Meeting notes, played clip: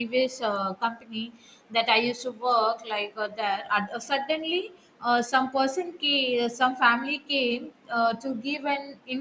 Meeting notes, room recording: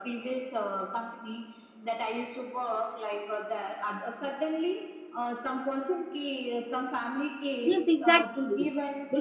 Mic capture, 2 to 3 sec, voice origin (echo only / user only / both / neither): echo only